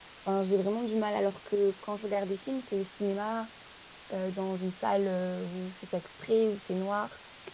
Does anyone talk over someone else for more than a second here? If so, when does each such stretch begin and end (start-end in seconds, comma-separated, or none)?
none